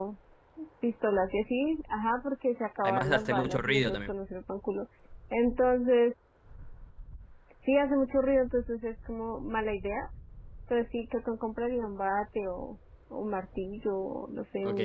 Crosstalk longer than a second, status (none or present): present